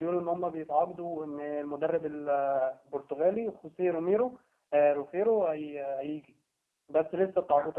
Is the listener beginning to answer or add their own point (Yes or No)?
No